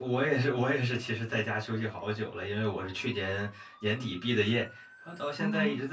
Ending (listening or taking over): listening